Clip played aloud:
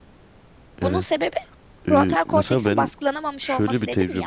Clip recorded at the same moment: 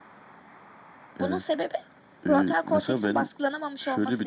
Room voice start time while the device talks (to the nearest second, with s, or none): none